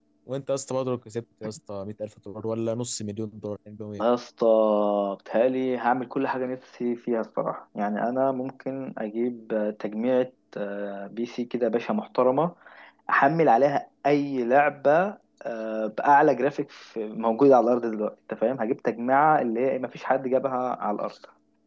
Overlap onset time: none

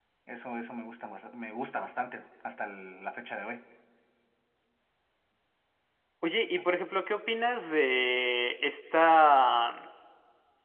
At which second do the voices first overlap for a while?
none

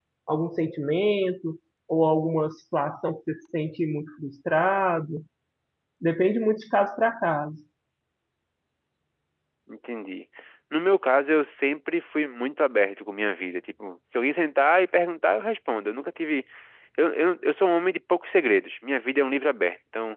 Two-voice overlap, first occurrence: none

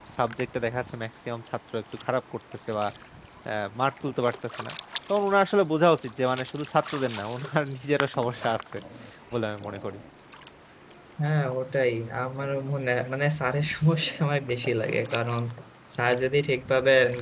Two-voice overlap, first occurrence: none

